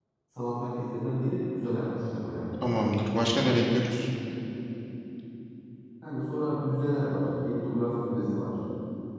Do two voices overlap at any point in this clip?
No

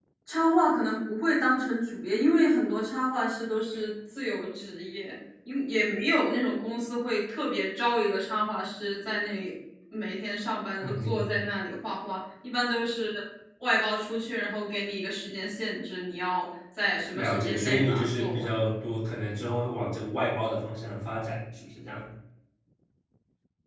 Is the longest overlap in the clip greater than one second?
Yes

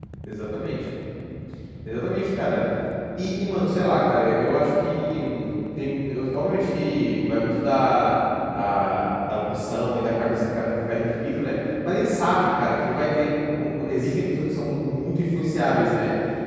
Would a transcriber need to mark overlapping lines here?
No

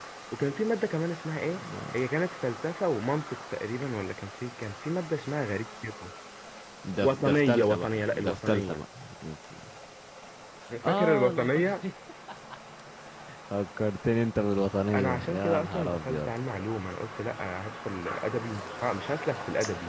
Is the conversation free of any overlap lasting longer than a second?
No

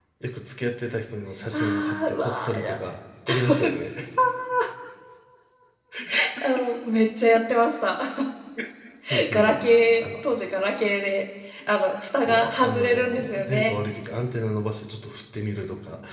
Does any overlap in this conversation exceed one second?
Yes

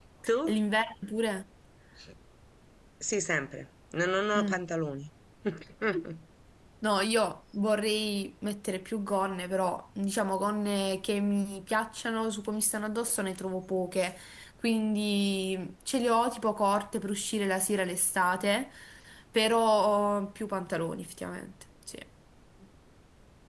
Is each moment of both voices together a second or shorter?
Yes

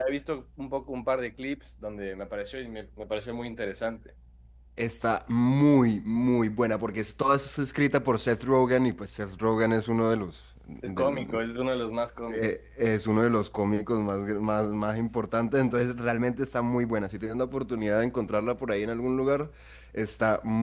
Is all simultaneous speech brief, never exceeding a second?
Yes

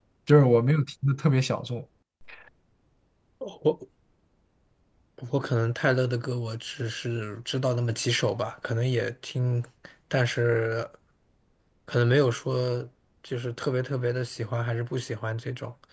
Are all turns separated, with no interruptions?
Yes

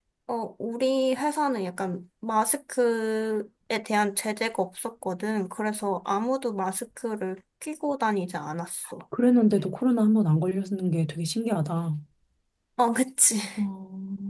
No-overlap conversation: Yes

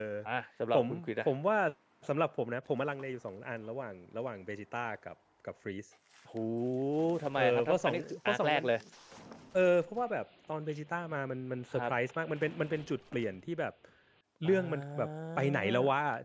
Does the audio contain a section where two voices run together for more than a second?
Yes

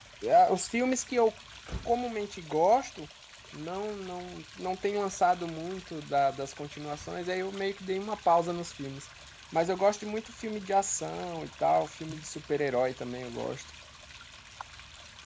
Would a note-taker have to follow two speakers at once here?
No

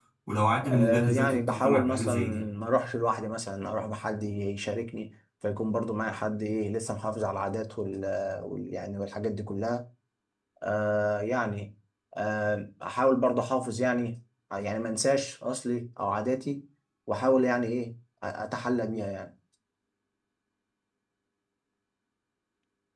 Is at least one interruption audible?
Yes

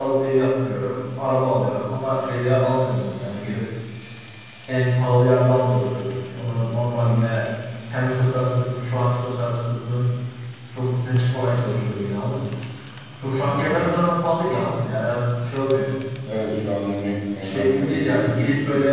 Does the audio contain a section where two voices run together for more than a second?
Yes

